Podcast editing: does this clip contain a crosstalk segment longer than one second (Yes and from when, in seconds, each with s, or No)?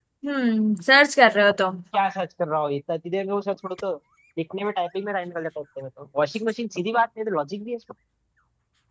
No